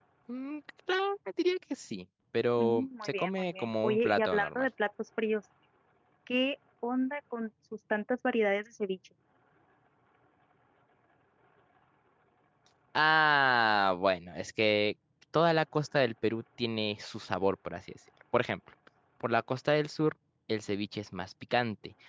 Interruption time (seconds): 2.6 s

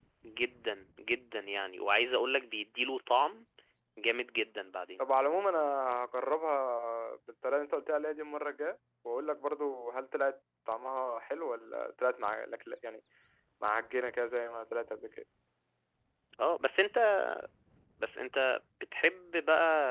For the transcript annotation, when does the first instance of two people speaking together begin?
none

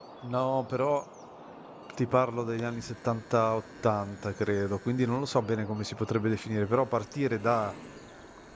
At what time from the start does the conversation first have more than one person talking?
none

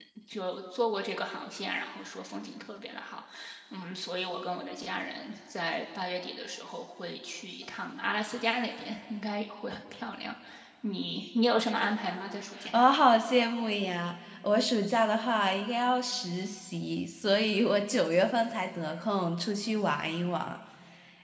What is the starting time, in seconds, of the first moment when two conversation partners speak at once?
none

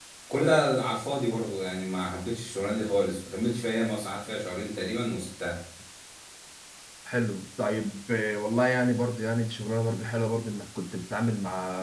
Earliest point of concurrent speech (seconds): none

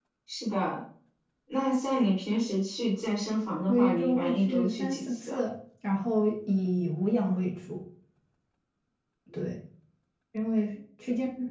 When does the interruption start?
3.7 s

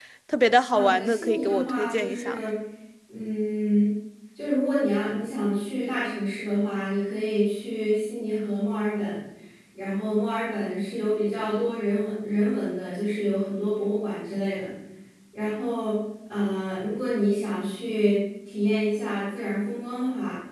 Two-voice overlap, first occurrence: 0.7 s

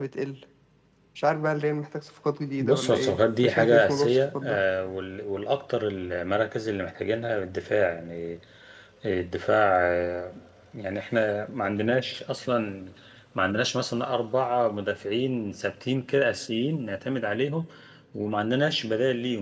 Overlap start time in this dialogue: 2.6 s

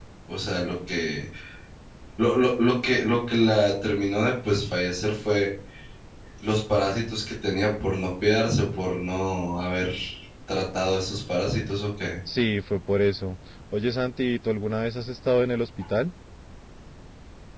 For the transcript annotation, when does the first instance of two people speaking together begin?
none

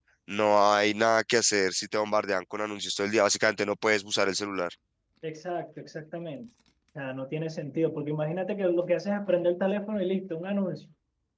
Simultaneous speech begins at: none

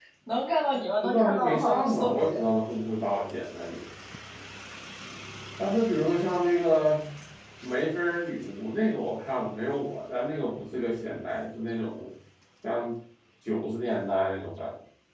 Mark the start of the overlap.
1.0 s

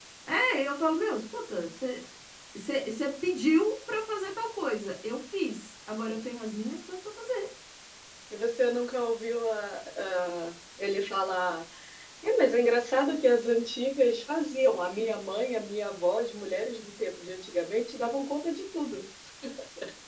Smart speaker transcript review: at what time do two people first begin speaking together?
none

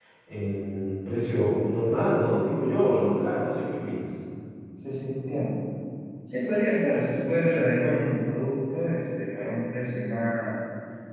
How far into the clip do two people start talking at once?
none

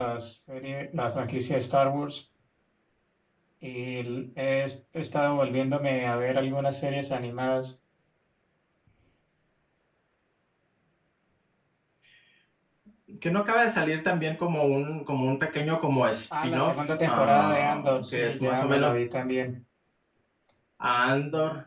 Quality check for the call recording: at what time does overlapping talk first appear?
16.3 s

